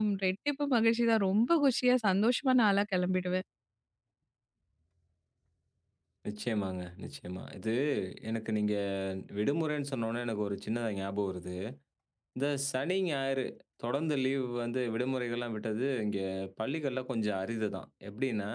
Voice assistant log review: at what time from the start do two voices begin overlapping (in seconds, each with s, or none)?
none